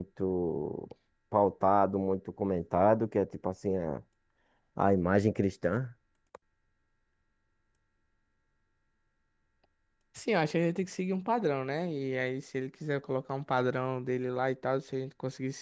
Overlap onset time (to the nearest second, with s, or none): none